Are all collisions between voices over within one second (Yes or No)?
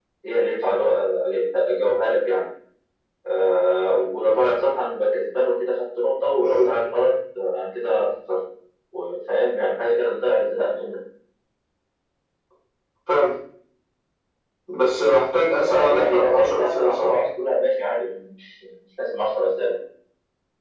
No